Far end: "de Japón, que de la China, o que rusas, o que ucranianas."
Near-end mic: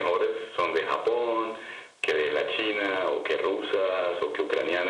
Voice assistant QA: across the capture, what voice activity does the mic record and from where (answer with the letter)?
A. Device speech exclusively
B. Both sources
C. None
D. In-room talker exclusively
A